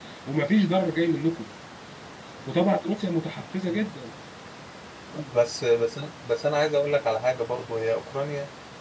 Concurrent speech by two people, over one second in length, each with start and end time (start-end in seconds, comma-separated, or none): none